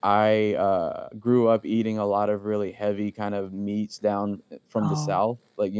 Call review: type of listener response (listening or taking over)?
listening